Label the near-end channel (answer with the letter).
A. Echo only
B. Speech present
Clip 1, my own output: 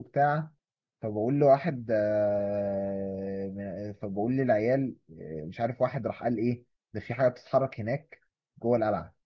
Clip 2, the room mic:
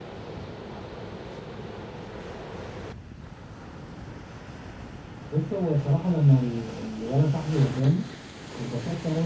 B